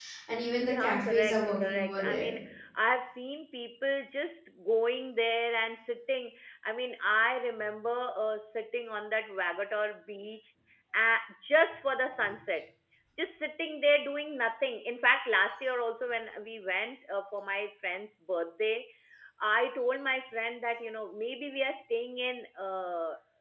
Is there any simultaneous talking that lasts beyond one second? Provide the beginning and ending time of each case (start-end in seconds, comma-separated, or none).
0.6-2.3